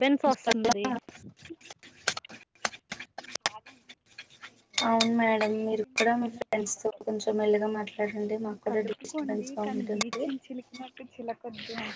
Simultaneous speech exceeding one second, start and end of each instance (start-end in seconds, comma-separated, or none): 8.7-10.3